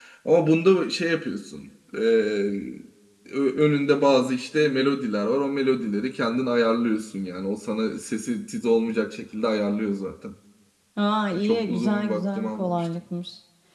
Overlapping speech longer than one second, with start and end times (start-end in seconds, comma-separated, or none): 11.3-12.8